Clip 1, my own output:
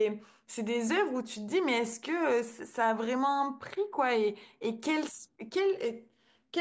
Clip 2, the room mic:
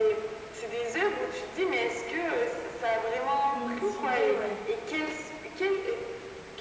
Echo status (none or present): present